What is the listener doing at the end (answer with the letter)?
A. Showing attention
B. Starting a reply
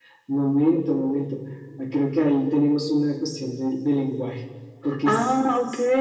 B